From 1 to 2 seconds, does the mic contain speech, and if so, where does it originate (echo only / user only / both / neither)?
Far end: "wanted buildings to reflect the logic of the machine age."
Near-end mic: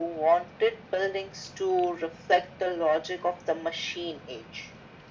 echo only